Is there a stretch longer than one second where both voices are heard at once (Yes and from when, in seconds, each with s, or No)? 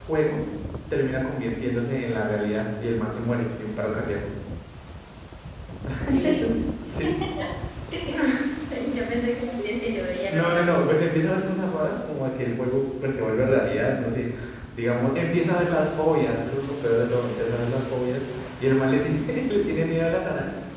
No